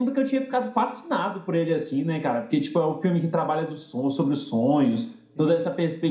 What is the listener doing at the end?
listening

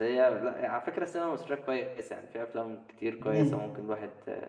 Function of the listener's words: listening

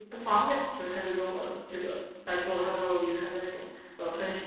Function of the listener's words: taking over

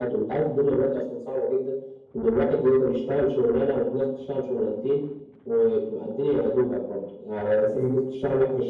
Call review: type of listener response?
listening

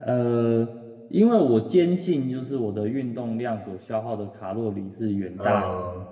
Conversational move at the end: listening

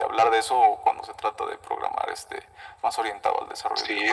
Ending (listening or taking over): taking over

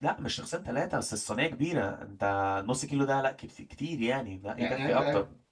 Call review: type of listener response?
taking over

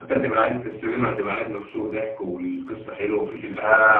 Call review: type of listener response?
taking over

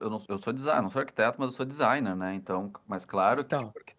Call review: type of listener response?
listening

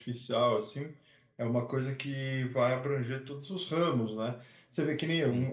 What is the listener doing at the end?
listening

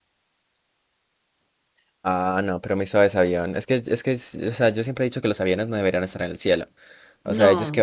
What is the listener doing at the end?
listening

